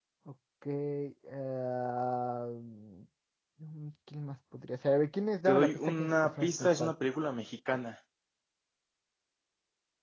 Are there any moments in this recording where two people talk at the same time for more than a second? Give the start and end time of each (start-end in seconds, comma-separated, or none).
5.5-6.9